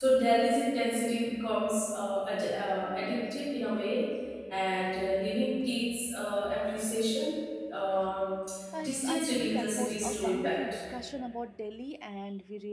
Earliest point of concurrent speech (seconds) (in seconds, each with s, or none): 8.8 s